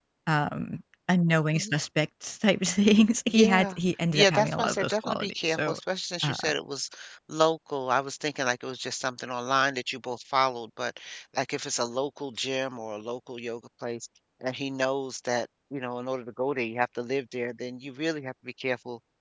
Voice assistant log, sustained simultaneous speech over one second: present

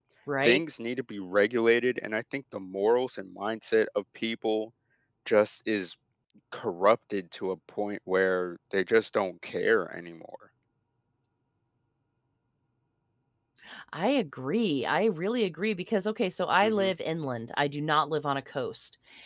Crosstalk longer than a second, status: none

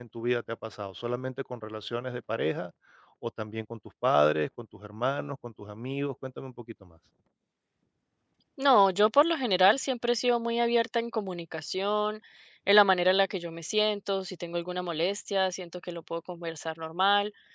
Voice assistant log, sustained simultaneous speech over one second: none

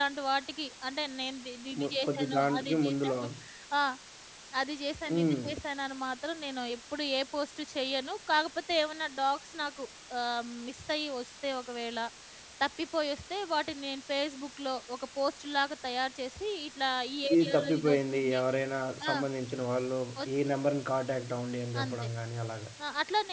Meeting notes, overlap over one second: present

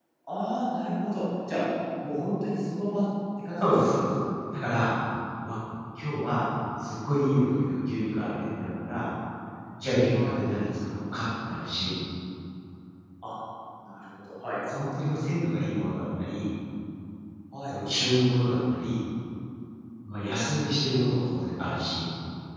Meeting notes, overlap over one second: none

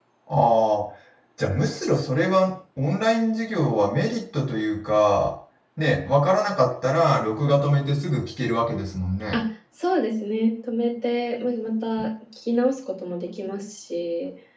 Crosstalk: none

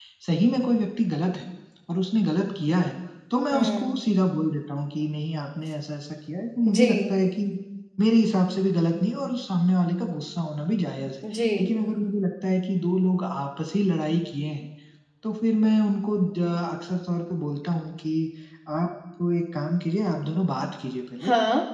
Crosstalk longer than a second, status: none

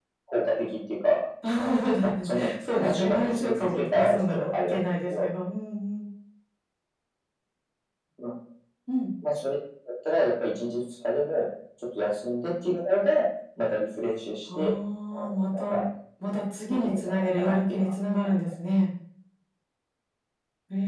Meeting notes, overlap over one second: present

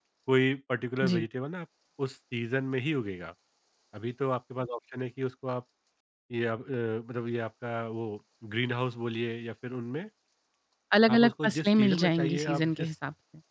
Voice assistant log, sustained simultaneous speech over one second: present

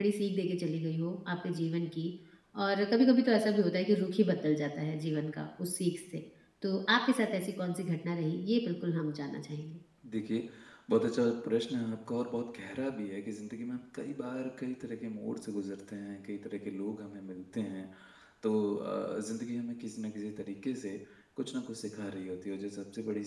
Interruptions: none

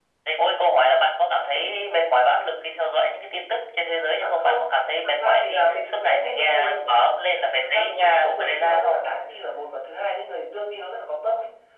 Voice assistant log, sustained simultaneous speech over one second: present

